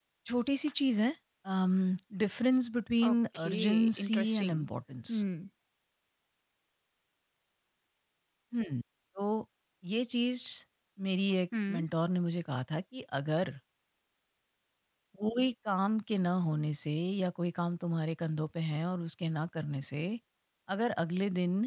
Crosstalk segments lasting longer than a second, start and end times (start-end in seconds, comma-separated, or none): 3.1-4.6